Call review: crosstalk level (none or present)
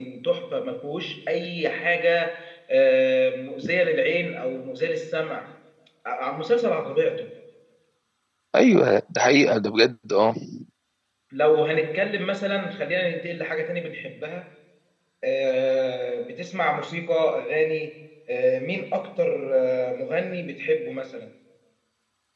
none